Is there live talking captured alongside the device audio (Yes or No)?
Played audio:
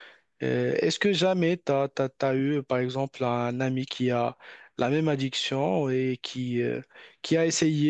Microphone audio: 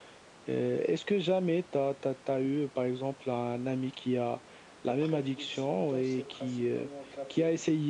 Yes